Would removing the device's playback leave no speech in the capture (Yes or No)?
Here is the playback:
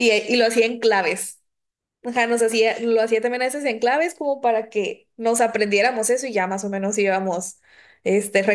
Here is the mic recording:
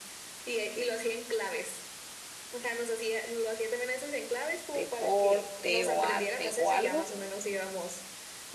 No